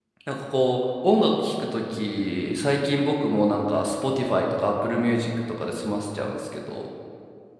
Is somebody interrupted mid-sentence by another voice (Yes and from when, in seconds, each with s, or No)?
No